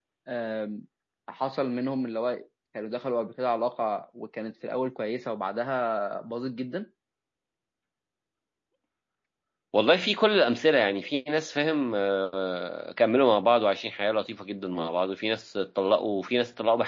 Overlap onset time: none

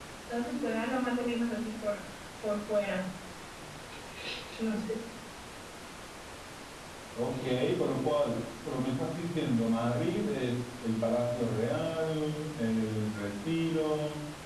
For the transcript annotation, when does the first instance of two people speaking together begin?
none

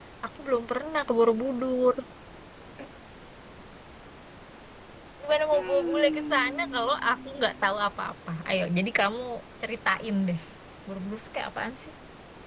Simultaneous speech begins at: 5.5 s

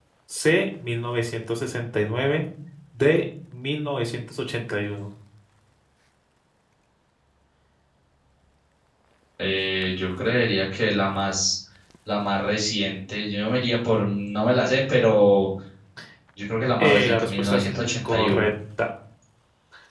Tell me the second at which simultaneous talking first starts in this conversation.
16.8 s

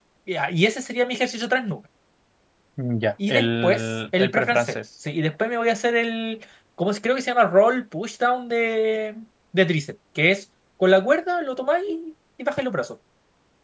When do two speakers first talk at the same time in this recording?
3.3 s

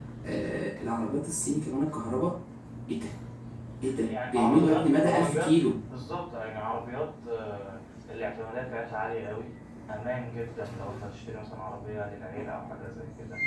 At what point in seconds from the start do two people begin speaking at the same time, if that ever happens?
4.1 s

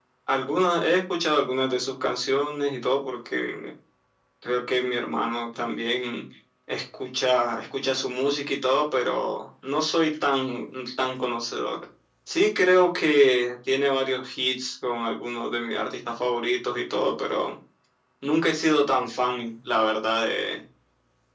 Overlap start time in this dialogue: none

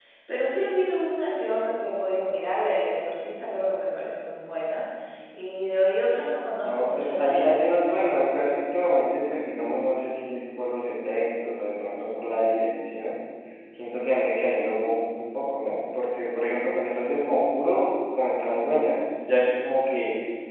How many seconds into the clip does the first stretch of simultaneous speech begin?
6.6 s

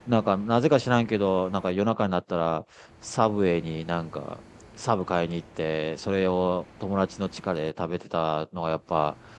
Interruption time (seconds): none

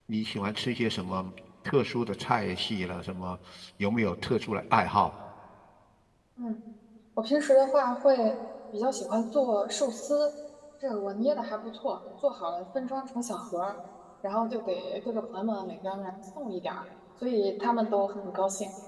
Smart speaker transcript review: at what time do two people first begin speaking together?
none

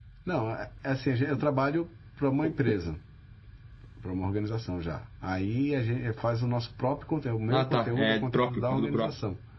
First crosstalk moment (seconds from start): 7.5 s

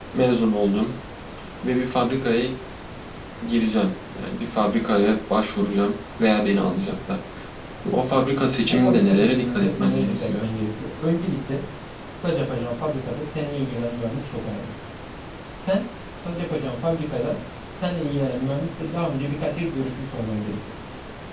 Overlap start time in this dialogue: 8.7 s

